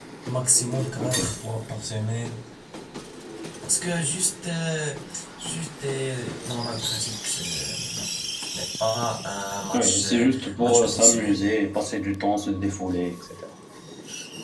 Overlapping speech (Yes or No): Yes